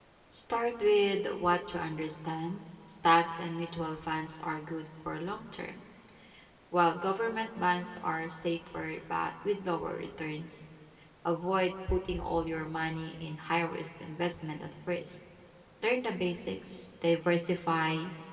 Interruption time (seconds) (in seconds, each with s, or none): none